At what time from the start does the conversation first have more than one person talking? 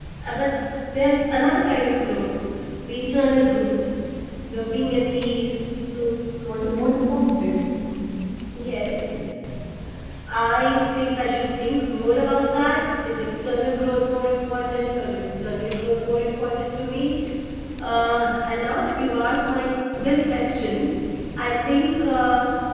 none

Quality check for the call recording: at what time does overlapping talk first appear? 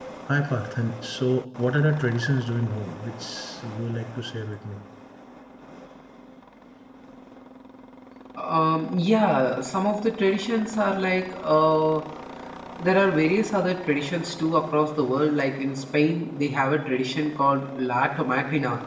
none

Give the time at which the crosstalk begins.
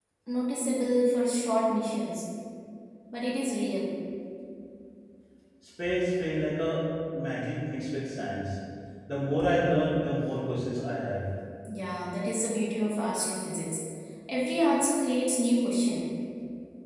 none

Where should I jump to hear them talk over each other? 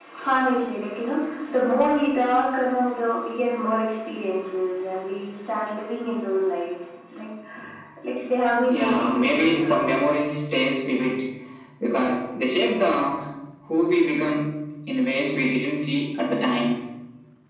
8.7 s

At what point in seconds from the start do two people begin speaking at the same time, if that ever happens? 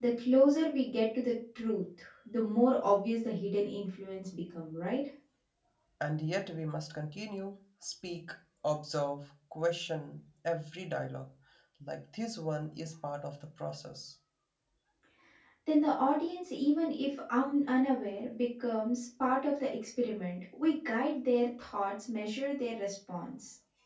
none

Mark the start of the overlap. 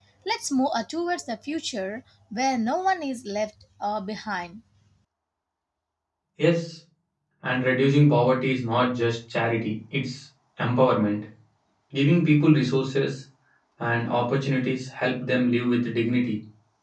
none

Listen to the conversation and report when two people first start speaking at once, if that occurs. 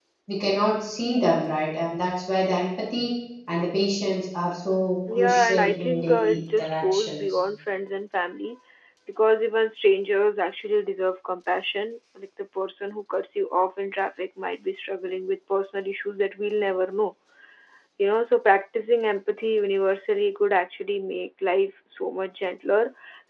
5.1 s

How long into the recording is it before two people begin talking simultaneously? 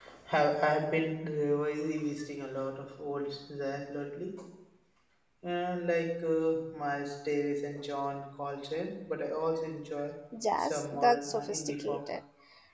10.6 s

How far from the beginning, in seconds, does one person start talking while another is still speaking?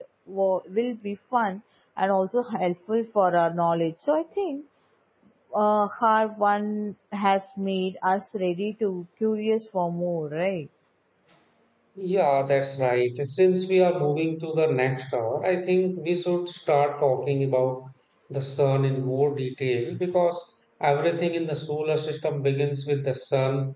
none

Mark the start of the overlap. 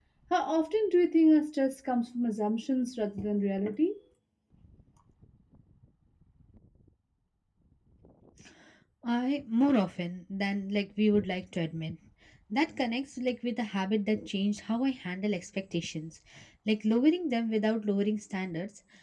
none

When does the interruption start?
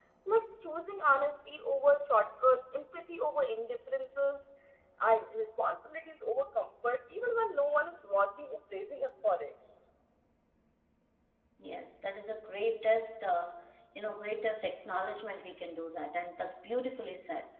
none

